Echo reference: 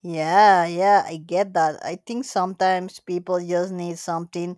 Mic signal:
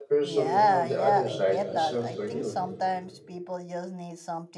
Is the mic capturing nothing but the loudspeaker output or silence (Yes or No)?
No